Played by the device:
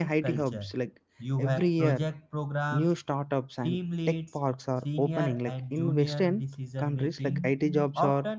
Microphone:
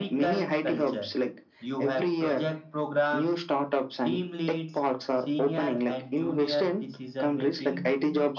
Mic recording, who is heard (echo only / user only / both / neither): echo only